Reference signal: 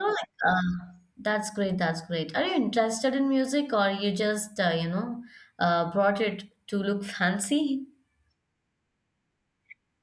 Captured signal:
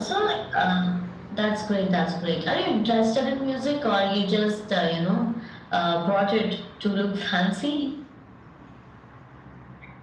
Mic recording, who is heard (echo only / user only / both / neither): echo only